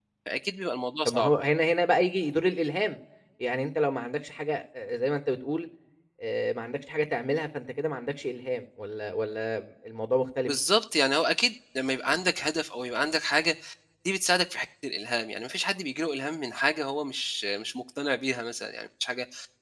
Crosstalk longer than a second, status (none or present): none